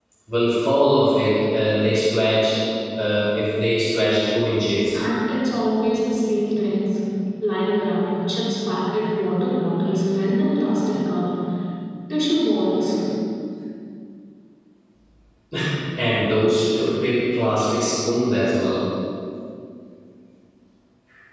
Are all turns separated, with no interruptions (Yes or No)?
Yes